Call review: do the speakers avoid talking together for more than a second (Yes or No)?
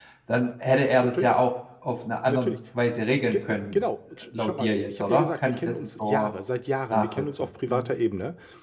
No